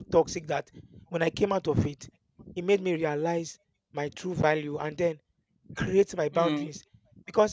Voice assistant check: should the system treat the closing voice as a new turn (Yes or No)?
No